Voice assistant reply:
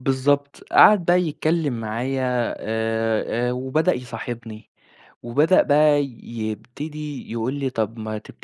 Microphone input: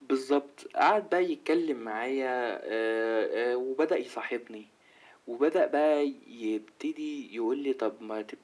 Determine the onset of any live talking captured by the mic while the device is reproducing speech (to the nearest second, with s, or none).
none